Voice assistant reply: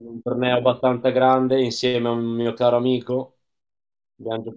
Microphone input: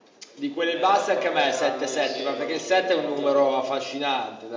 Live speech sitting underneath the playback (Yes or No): No